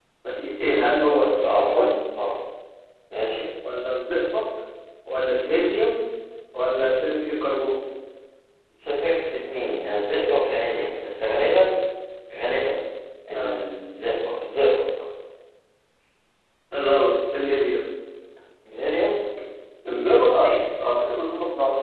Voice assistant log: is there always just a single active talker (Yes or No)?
No